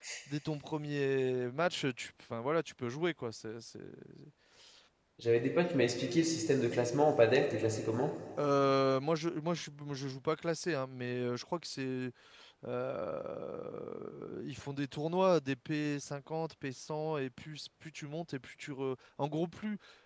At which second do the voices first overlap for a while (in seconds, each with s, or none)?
none